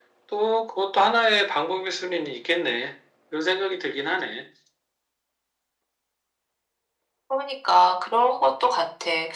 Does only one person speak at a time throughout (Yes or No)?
Yes